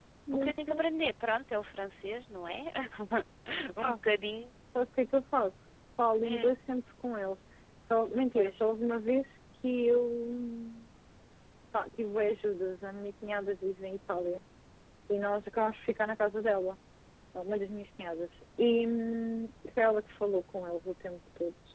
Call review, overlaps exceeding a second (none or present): none